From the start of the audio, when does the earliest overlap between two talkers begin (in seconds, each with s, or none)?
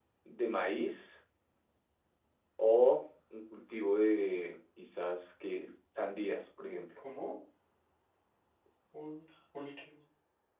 none